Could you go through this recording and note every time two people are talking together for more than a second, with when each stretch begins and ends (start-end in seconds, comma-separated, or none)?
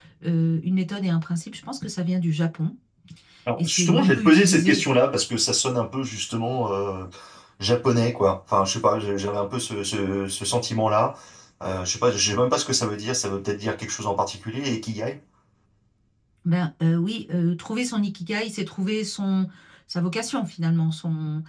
3.6-4.8